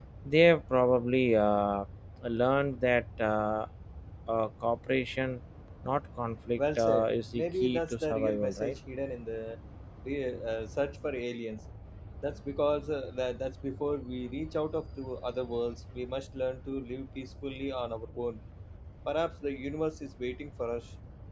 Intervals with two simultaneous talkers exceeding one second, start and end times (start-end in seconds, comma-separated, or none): 6.6-8.8